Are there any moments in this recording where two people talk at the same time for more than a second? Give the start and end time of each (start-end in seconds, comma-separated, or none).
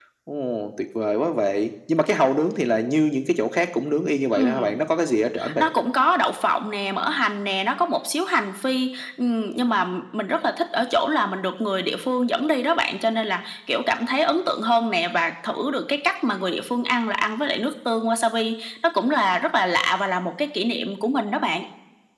none